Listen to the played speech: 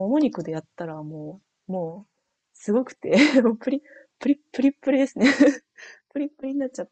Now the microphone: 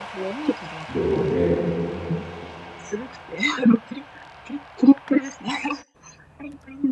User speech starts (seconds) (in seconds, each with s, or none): 0.9 s